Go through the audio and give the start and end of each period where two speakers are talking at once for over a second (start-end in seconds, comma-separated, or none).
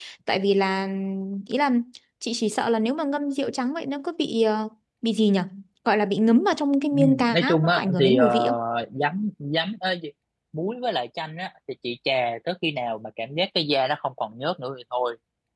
6.9-8.4